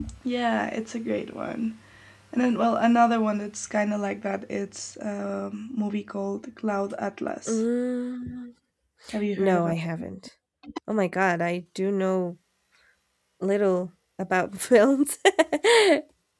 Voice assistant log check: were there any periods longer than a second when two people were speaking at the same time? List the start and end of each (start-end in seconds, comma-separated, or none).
none